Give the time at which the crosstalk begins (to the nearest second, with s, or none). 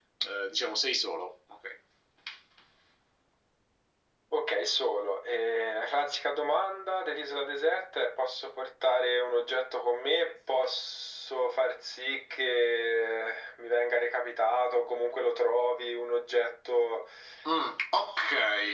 none